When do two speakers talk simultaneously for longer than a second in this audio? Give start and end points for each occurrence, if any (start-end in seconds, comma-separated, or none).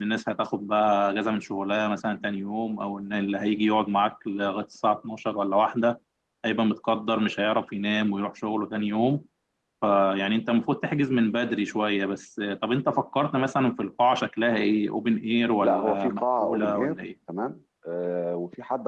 15.6-17.0